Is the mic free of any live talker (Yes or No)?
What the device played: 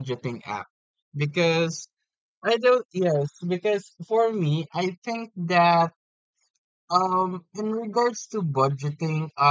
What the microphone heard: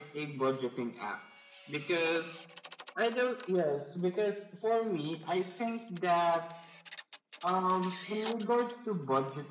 Yes